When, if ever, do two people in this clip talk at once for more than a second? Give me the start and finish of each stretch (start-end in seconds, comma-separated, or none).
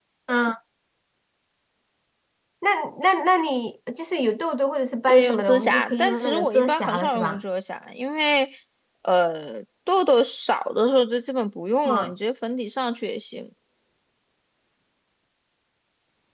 5.1-7.4